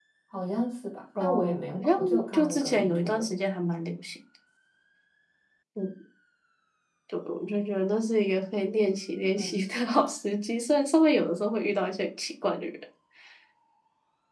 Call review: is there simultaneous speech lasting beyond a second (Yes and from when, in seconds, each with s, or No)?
Yes, from 1.2 s